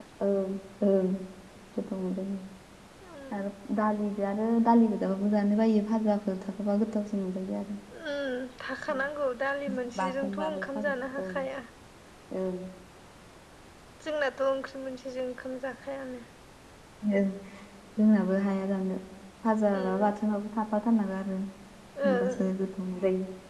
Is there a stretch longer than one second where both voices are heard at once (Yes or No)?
Yes